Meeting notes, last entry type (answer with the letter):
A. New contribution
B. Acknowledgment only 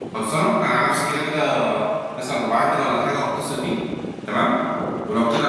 B